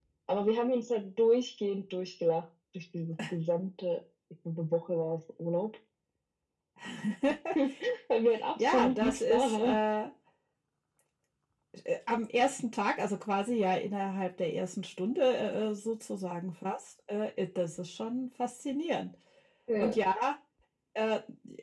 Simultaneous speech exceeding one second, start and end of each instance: 8.6-9.8

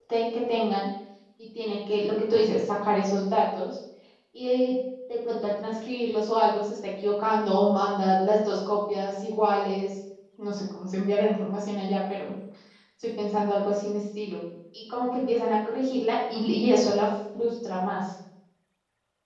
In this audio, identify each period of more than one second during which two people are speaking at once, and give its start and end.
none

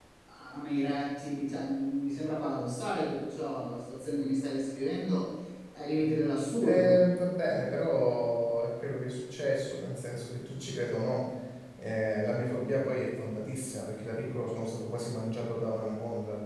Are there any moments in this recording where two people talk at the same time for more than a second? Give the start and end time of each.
none

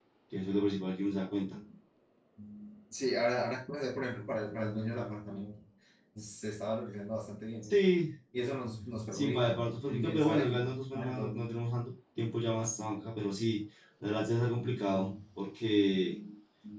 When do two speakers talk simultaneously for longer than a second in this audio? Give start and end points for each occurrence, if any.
9.1-11.4

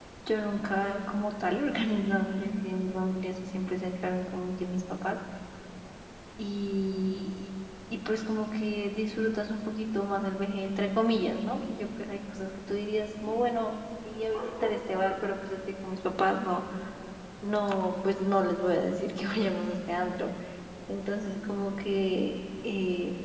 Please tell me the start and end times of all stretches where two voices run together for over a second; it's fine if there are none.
none

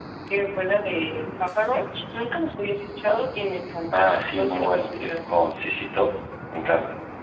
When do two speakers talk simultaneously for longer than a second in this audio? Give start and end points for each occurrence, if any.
3.9-5.2

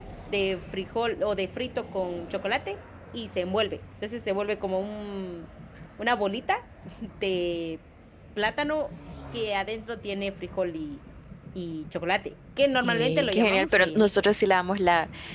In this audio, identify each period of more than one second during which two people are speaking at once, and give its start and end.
12.8-14.1

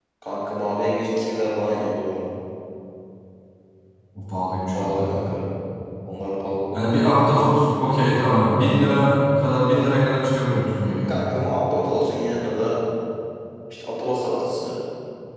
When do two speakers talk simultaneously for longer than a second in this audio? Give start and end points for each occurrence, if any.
none

